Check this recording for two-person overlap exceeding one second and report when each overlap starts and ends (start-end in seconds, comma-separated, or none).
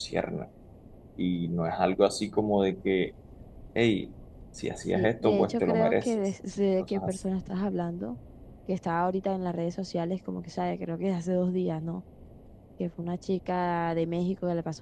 5.0-6.2